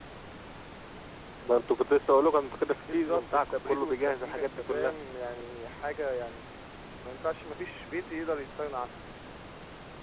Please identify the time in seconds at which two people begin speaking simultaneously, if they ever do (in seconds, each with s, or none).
2.8 s